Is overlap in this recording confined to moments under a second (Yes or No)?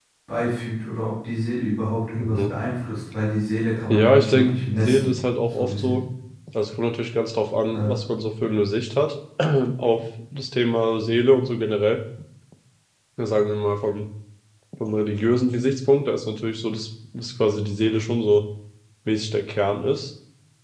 No